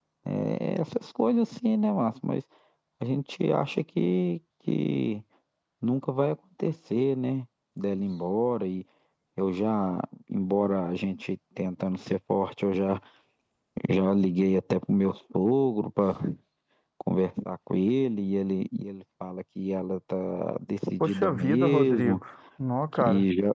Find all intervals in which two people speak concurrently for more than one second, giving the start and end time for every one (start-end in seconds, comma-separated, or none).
21.0-22.2